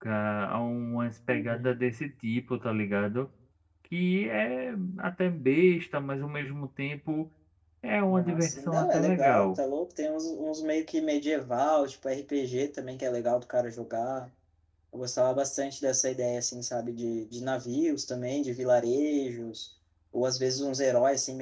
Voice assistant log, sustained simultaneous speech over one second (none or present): present